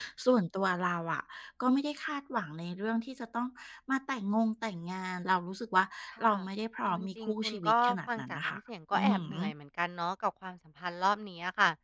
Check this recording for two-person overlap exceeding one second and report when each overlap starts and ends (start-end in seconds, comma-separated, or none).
6.8-8.6